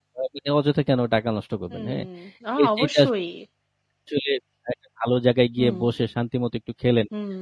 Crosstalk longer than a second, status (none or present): none